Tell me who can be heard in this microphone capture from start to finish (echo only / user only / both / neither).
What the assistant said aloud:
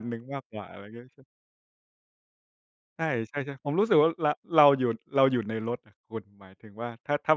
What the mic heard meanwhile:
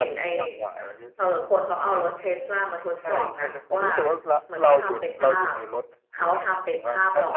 both